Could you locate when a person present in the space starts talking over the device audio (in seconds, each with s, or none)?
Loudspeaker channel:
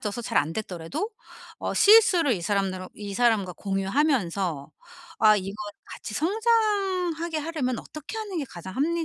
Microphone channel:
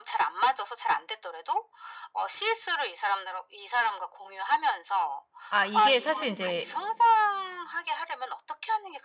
5.5 s